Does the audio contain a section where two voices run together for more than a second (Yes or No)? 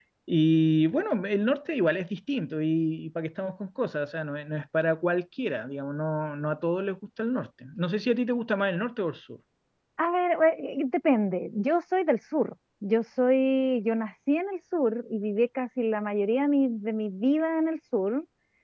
No